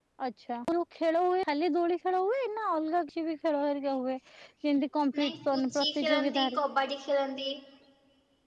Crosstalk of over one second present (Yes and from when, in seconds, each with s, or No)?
Yes, from 5.1 s